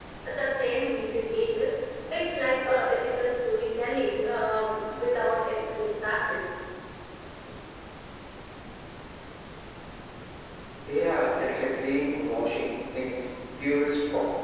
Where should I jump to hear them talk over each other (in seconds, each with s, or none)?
none